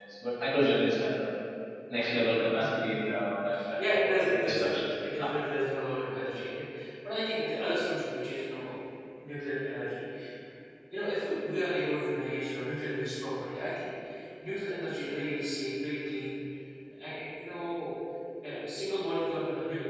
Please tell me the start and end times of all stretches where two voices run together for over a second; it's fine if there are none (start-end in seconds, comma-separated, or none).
3.8-5.2